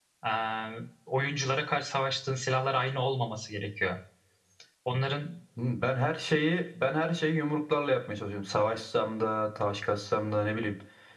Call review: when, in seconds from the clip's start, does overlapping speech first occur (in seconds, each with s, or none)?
none